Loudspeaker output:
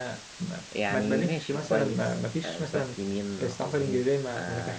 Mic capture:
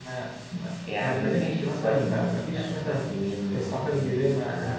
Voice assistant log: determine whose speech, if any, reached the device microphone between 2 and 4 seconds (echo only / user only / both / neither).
echo only